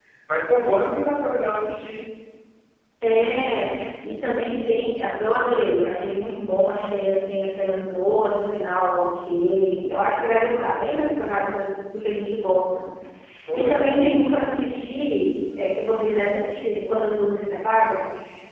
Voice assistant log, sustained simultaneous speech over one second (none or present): none